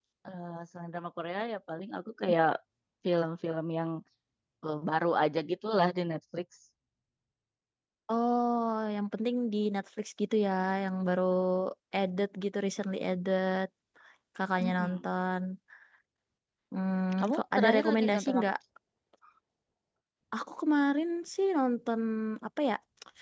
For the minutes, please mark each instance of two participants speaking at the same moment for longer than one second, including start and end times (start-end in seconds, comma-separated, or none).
17.2-18.5